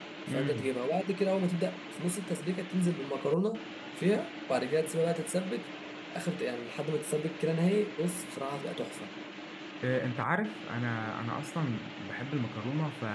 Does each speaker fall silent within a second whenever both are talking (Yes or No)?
Yes